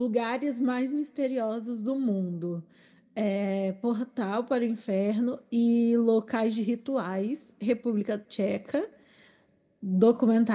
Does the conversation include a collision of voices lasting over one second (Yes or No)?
No